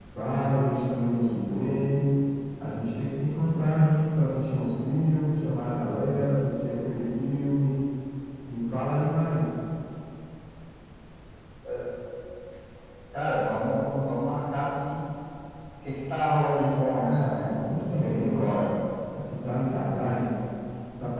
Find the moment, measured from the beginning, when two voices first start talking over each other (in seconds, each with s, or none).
16.9 s